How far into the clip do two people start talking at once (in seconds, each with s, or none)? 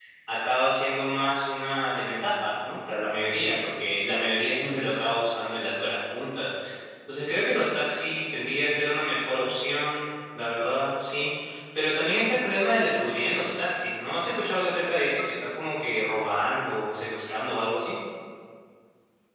none